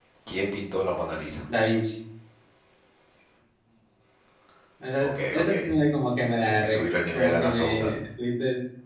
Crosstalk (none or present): present